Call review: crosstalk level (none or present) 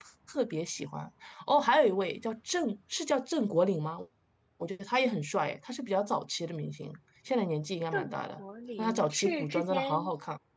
present